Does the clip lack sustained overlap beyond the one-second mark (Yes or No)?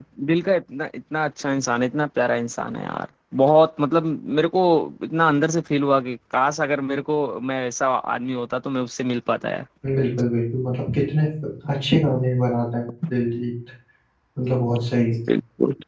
Yes